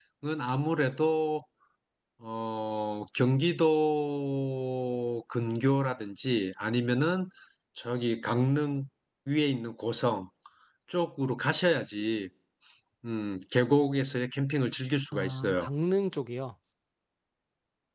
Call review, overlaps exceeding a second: none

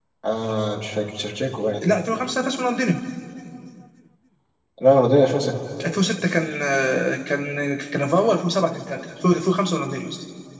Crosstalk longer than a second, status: none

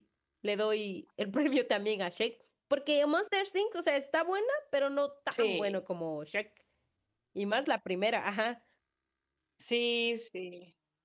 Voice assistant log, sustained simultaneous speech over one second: none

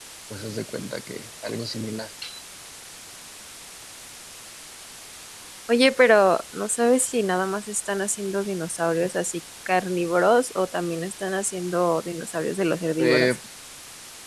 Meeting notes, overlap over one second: none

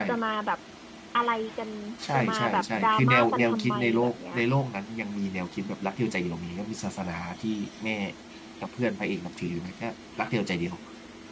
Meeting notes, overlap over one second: present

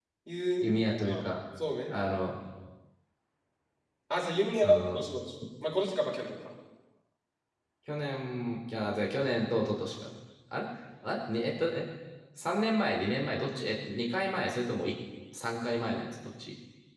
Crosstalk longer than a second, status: none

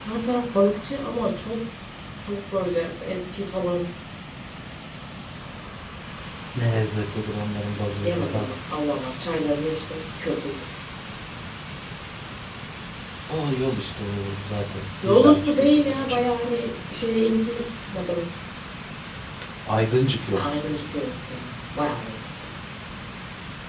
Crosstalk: present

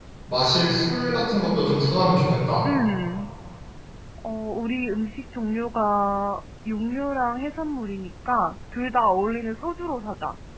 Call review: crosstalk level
none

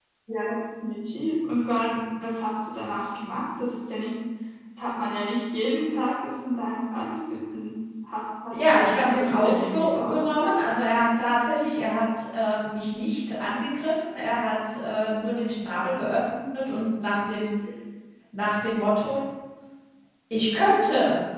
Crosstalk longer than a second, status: present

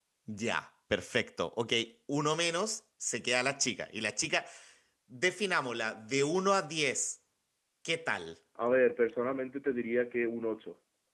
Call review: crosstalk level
none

